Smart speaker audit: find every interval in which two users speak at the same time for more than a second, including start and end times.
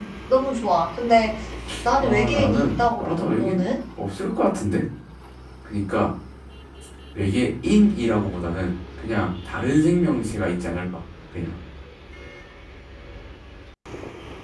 2.0-3.7

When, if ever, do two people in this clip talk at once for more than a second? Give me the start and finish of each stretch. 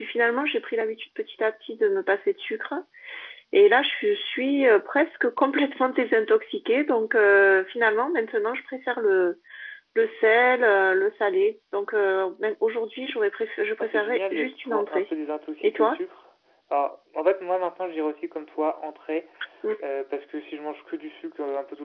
13.8-15.0

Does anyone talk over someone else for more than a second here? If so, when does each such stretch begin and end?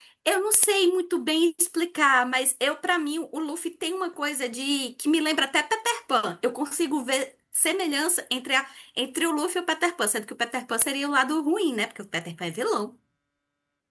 none

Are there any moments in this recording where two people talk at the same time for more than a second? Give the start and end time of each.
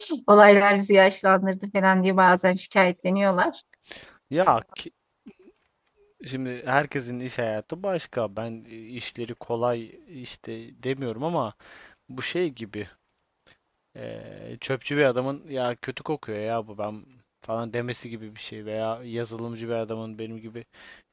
none

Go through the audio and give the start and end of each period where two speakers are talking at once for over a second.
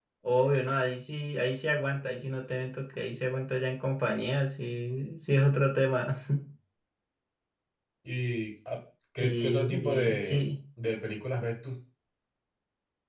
9.2-10.5

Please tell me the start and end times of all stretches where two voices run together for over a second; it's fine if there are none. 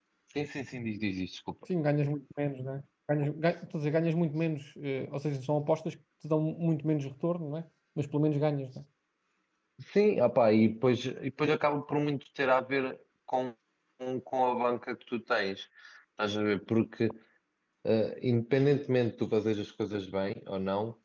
none

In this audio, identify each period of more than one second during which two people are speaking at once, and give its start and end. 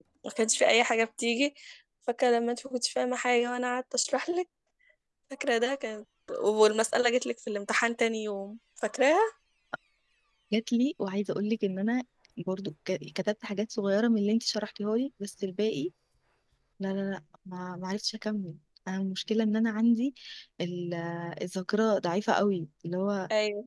none

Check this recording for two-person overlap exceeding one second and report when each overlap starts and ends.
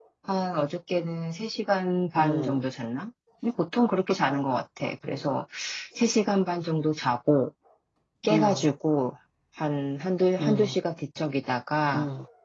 none

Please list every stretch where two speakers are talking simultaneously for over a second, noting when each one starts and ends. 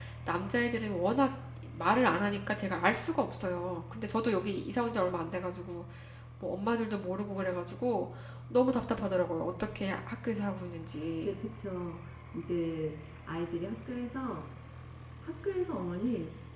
none

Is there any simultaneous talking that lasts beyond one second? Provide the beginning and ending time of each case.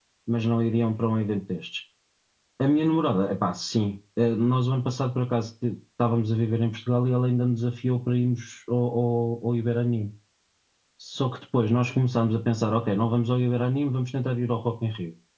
none

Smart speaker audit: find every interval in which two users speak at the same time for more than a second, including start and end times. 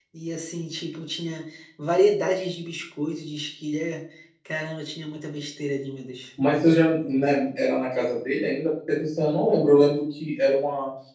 none

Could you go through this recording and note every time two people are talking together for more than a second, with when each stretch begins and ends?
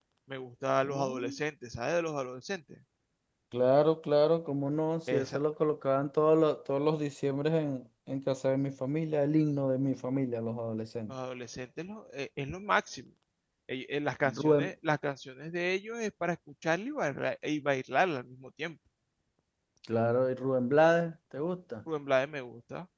none

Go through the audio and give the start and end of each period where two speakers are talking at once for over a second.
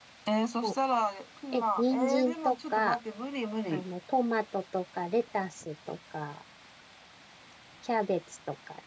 1.5-3.0

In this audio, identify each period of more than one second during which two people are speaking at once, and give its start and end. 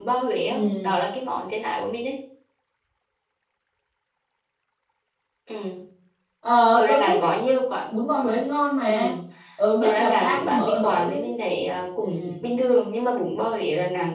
9.8-11.3

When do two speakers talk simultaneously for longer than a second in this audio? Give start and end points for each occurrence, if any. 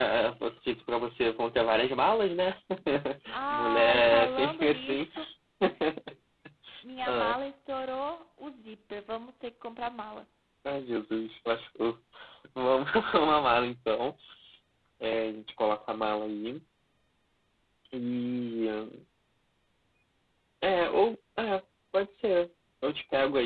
3.5-5.1

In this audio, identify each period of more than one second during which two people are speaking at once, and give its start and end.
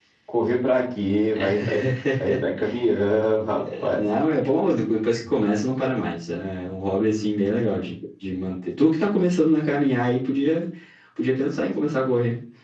none

